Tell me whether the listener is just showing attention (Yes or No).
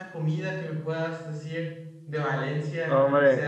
No